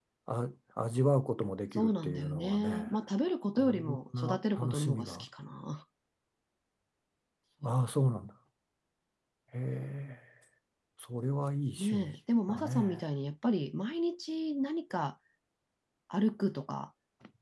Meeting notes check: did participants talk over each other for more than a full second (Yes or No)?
Yes